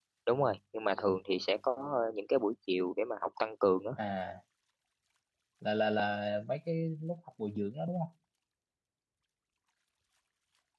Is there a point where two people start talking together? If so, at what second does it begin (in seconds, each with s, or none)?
none